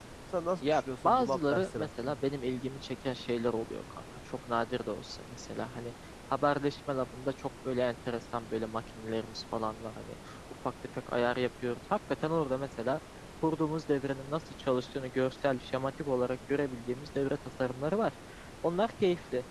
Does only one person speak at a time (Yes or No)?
No